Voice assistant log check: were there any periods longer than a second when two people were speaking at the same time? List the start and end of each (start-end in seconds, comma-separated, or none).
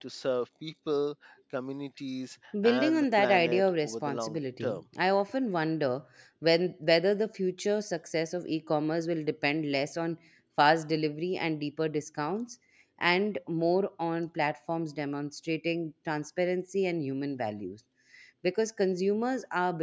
2.6-4.8